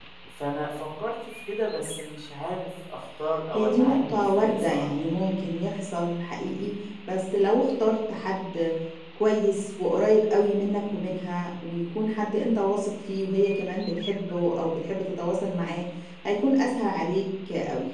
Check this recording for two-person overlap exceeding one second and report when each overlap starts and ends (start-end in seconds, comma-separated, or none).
3.5-4.9